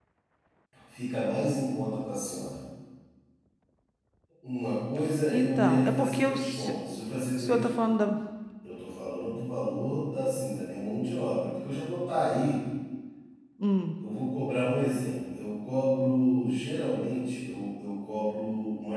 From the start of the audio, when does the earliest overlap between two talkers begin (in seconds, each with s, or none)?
5.3 s